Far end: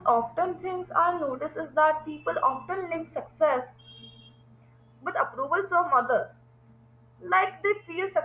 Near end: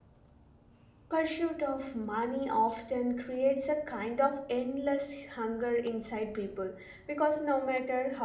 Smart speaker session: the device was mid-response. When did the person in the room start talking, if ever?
1.1 s

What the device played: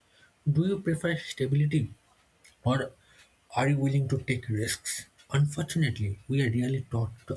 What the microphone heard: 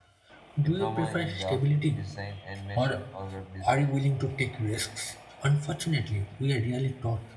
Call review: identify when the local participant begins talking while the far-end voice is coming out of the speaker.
0.6 s

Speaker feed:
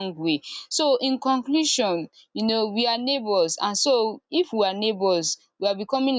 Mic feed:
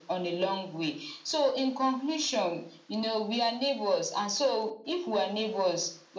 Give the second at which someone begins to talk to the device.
none

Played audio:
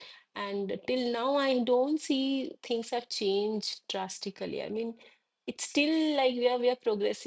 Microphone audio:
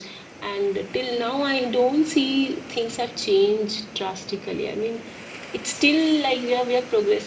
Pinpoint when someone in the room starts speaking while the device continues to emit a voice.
none

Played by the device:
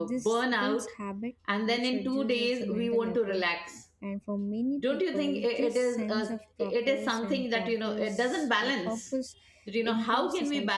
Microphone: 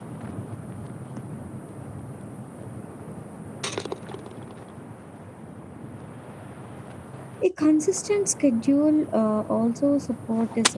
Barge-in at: 7.4 s

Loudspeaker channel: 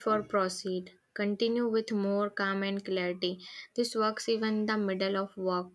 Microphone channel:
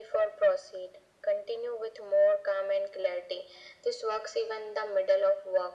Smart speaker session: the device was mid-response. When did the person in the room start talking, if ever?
none

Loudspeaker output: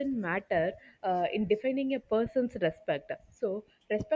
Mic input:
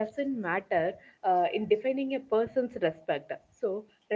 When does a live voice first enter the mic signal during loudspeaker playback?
none

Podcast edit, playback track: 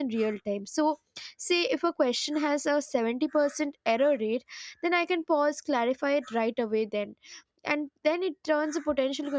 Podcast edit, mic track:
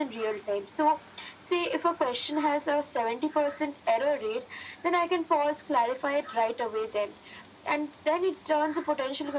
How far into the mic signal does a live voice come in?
none

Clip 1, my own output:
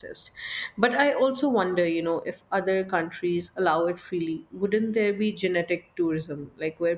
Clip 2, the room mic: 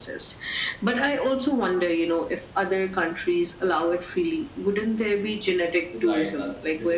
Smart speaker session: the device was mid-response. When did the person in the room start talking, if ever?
5.9 s

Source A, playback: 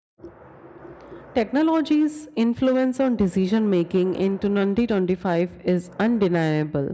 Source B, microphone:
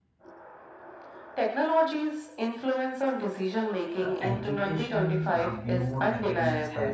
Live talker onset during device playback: 4.0 s

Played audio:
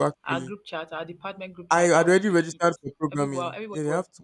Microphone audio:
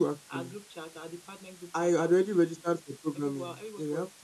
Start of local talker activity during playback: none

